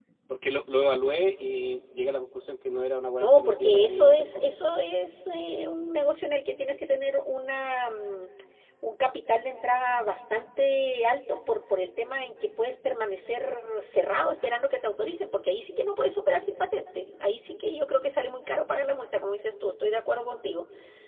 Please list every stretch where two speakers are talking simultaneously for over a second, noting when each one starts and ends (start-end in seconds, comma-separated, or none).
3.2-4.6